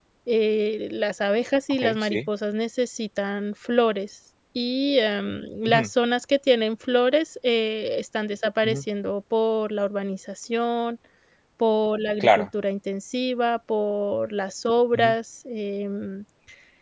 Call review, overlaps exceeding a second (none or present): none